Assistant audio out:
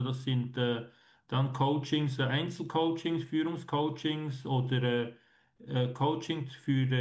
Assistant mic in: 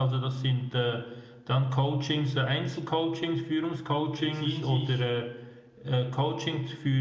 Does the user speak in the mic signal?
Yes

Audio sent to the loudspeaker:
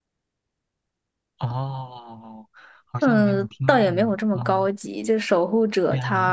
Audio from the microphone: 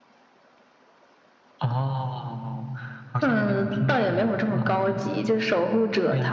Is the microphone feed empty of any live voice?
Yes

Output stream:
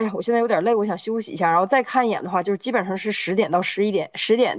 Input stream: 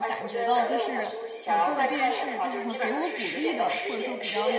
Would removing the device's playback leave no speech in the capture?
No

